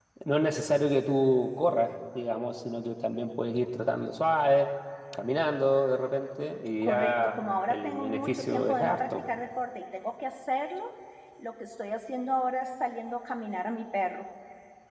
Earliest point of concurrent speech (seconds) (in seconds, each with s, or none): 6.8 s